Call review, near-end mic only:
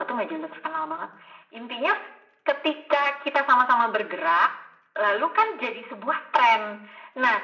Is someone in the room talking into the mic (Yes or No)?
No